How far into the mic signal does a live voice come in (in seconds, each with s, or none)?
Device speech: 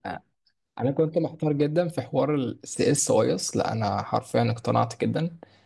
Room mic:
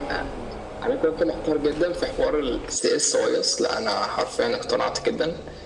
none